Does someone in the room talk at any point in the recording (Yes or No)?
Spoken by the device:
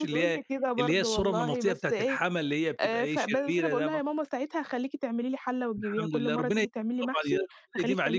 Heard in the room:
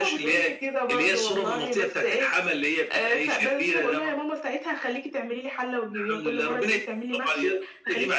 No